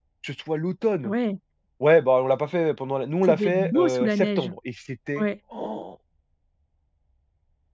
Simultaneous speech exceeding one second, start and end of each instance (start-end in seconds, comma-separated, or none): 3.2-4.5